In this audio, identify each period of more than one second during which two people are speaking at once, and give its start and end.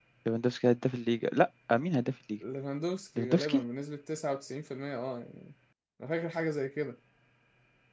none

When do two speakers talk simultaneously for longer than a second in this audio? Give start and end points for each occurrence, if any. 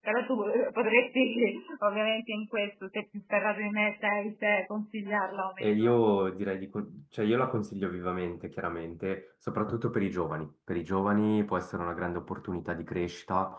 none

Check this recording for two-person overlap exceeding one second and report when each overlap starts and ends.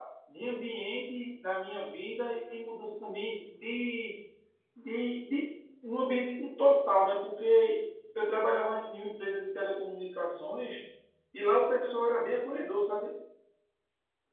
none

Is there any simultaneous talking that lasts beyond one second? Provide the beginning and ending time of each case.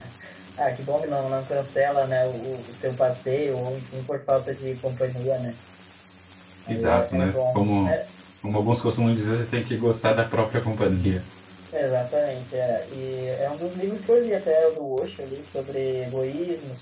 6.7-7.9

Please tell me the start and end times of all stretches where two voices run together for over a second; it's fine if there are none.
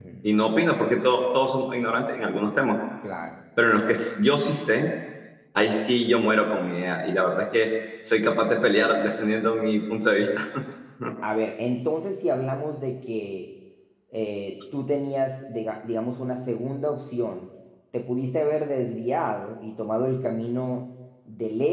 none

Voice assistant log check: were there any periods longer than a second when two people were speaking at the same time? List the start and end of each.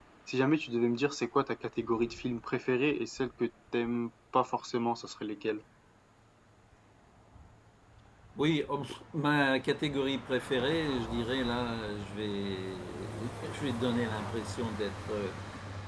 none

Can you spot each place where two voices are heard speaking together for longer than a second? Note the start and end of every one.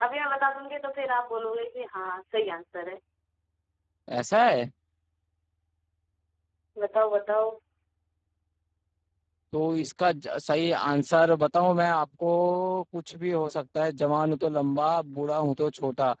none

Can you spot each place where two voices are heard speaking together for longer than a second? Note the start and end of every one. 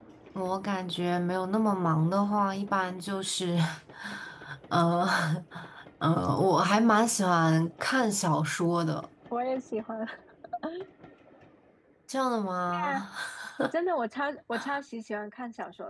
none

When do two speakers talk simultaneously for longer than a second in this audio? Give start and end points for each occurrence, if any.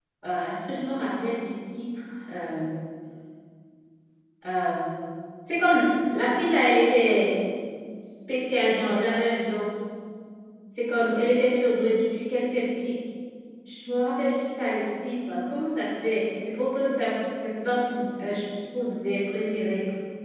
none

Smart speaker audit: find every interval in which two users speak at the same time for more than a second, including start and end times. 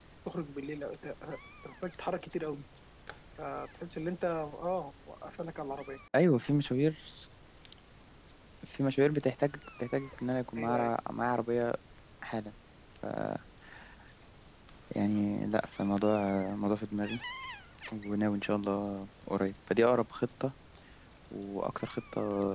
none

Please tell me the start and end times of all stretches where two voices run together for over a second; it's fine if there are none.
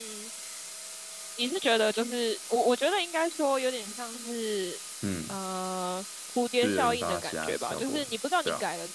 6.6-8.1

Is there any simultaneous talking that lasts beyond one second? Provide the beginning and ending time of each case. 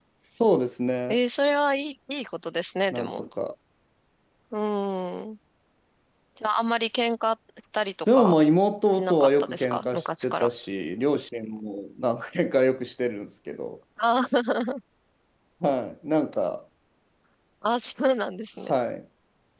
8.9-10.5

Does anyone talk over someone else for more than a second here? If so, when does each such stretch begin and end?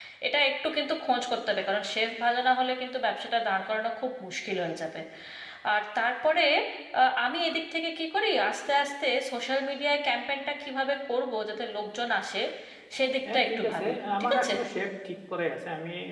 13.3-14.6

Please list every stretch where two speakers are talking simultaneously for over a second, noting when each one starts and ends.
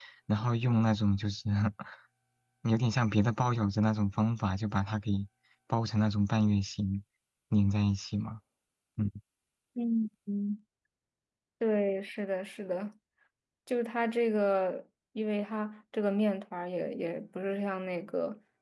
none

